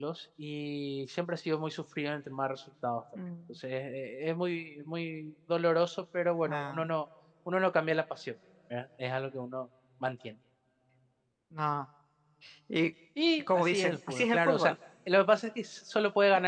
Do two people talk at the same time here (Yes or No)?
Yes